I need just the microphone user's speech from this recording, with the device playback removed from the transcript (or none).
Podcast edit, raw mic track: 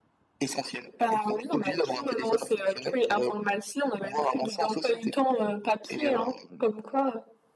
none